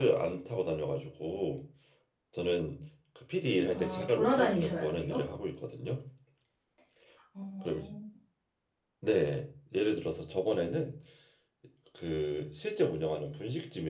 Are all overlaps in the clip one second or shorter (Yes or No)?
No